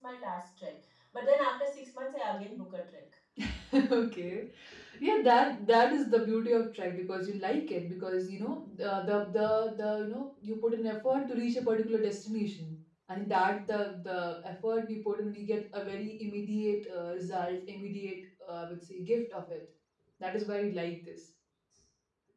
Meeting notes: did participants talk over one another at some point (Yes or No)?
No